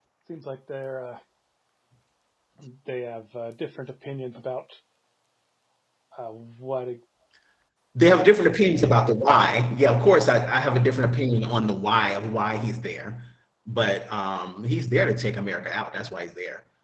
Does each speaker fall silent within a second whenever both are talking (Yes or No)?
Yes